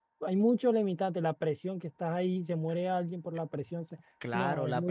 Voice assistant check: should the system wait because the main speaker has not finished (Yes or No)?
No